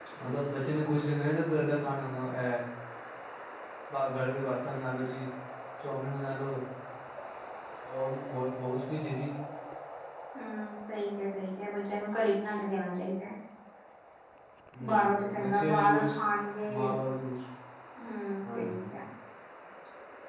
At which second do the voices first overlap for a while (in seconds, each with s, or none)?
14.9 s